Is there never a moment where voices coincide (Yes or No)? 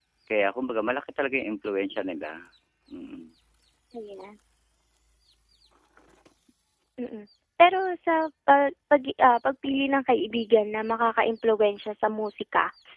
Yes